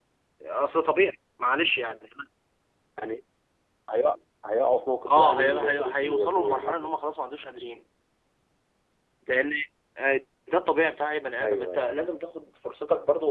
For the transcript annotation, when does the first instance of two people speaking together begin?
5.1 s

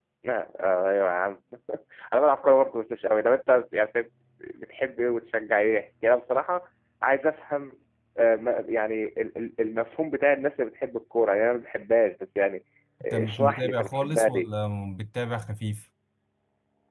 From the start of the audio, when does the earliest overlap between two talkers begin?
13.1 s

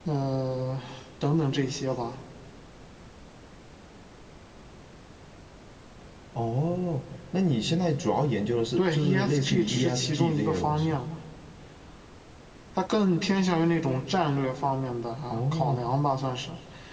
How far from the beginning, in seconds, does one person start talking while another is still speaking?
8.8 s

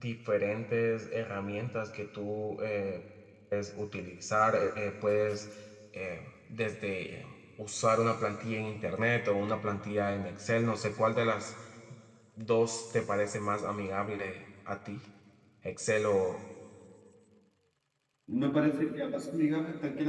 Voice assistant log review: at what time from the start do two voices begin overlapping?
none

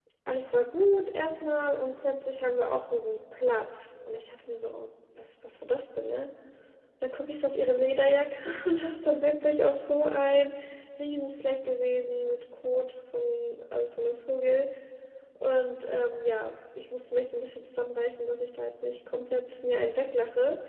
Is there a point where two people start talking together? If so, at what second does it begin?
none

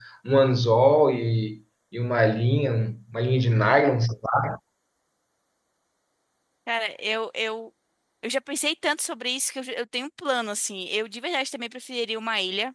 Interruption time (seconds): none

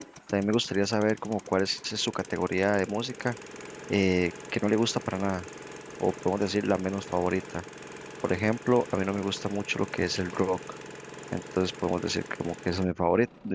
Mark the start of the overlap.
none

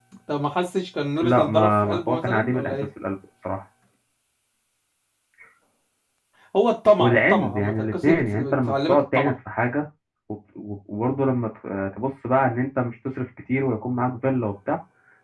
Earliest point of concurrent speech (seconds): 1.2 s

